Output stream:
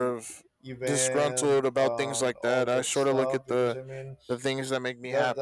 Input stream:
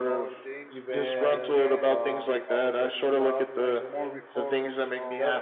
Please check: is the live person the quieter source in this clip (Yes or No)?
Yes